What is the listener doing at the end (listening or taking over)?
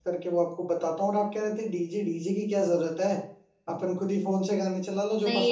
taking over